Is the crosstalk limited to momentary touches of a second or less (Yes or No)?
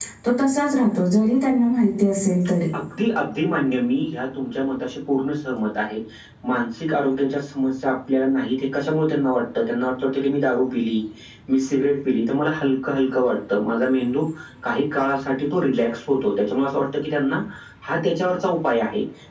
Yes